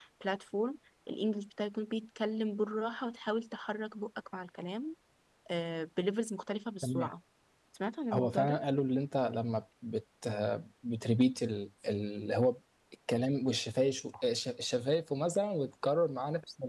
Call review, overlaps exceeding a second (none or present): none